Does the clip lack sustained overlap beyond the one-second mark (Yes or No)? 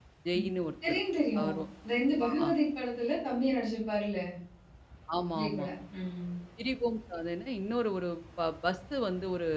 Yes